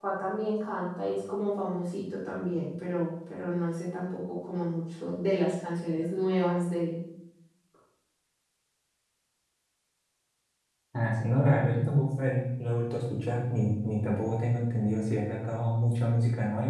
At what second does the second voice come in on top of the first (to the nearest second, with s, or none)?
none